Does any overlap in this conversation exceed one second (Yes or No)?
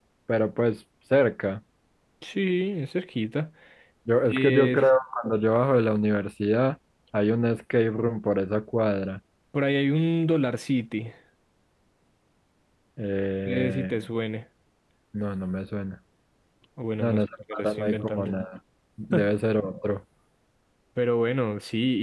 Yes